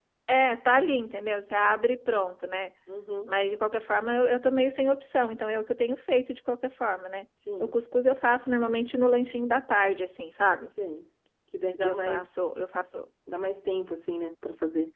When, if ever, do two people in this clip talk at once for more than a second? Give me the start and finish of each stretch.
none

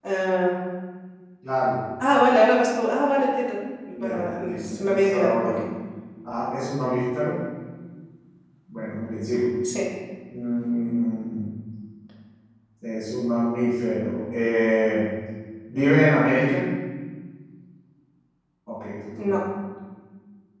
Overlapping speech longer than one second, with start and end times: 4.0-5.6

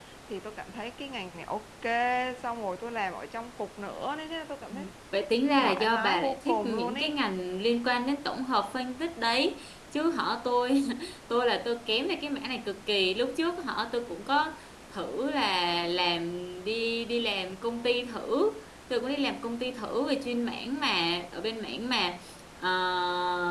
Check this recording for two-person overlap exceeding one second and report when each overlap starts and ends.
5.6-7.2

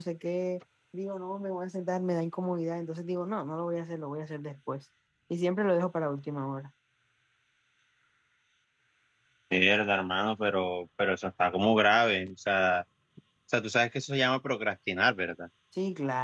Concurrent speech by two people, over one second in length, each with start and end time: none

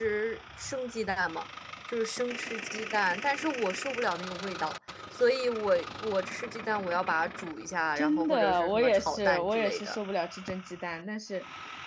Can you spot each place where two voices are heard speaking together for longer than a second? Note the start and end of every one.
8.0-10.0

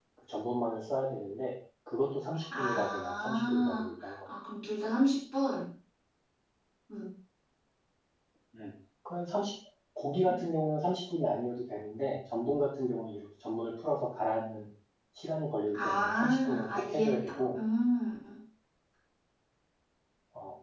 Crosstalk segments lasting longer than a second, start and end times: 2.5-4.1, 15.7-17.6

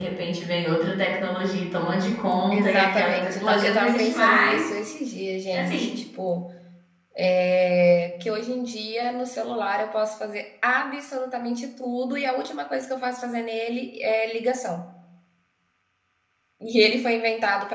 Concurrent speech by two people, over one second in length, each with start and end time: 2.5-4.6

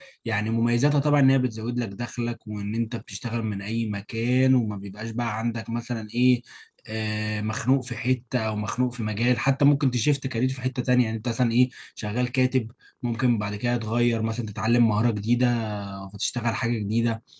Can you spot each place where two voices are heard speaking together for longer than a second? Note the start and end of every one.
none

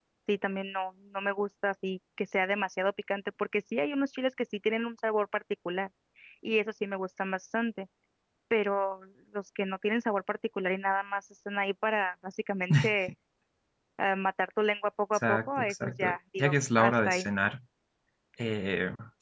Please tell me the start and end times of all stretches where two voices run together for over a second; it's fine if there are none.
15.2-17.3

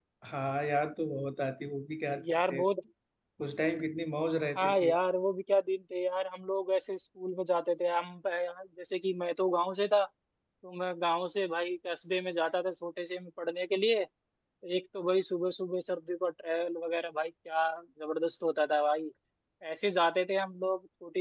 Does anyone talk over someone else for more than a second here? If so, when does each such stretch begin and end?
none

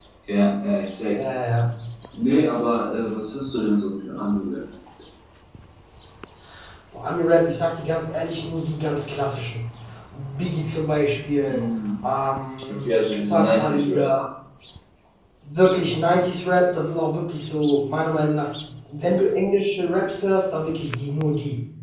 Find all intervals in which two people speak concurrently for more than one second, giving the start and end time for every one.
12.7-14.1

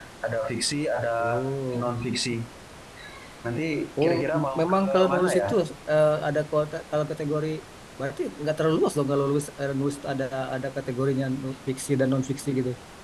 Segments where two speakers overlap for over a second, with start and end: 4.0-5.5

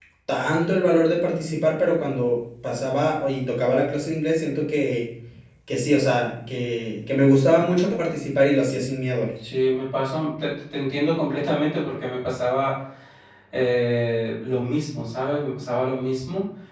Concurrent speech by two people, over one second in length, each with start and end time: none

